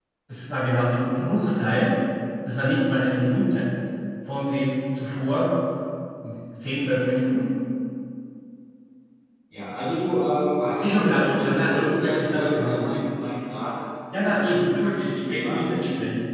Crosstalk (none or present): present